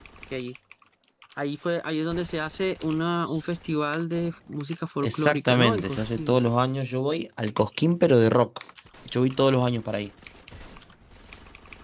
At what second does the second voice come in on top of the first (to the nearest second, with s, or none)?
5 s